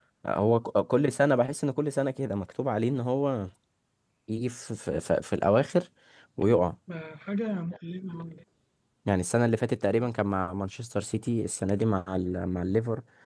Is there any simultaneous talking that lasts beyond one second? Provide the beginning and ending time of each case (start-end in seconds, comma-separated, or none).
none